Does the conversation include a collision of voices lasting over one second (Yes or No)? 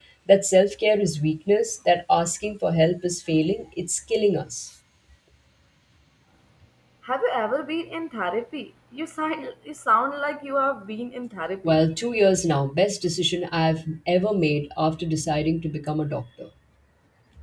No